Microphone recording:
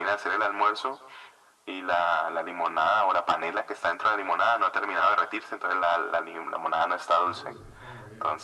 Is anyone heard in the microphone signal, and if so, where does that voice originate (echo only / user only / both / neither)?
both